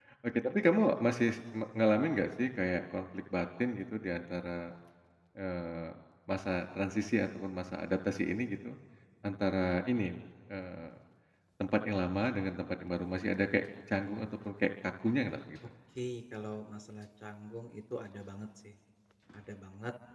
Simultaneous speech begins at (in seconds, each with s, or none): none